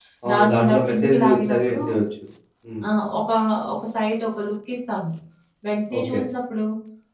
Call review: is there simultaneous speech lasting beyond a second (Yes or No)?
Yes